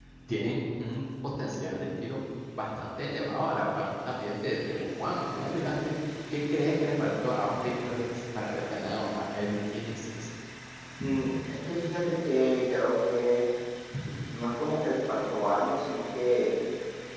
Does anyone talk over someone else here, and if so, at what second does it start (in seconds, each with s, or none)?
none